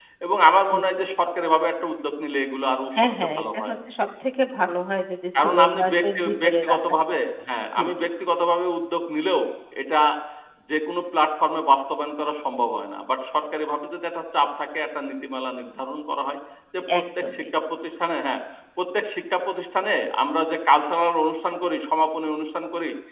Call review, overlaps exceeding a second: present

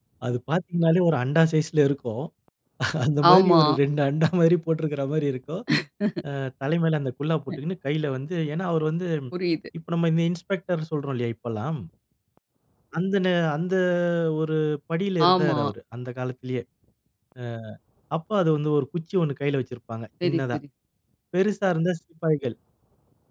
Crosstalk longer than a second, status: none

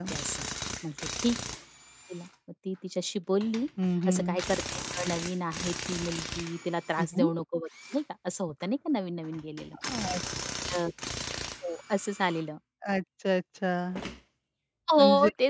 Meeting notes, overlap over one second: none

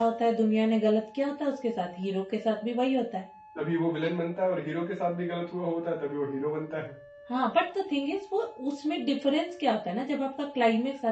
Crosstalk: none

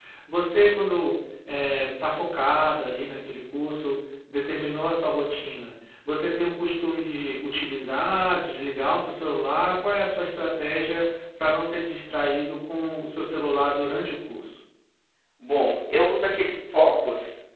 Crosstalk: none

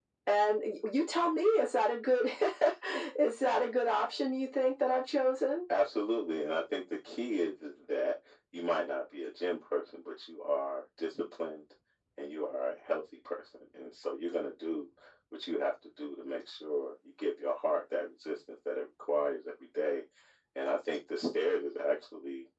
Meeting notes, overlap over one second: none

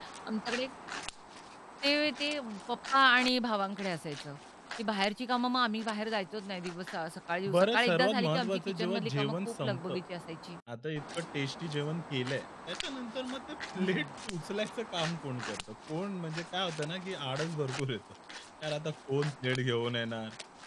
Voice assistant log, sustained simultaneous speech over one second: present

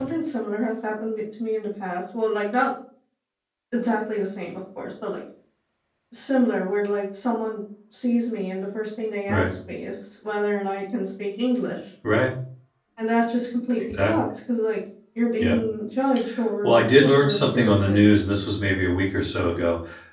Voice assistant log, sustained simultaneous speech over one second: present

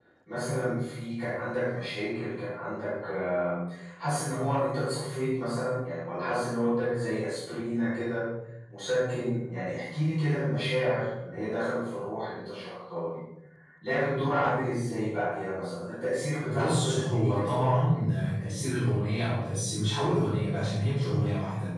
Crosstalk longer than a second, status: present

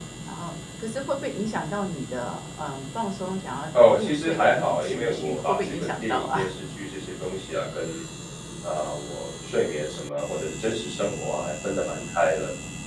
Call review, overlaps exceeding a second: present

